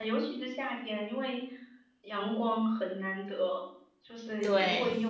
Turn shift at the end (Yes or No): No